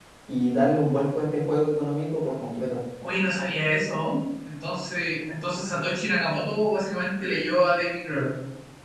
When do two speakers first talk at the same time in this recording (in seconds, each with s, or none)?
none